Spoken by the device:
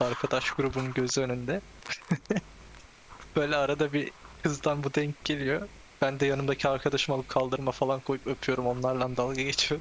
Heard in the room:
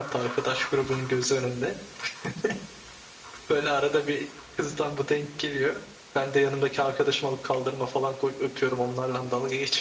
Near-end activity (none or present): none